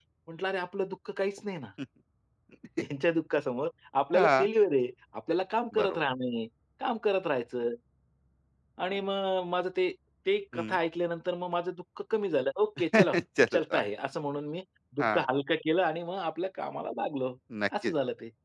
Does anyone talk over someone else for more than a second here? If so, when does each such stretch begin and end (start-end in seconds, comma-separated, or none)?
none